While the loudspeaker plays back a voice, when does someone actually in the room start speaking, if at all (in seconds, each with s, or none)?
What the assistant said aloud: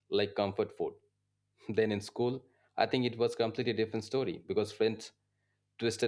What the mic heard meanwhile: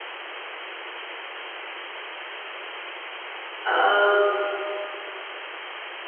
3.6 s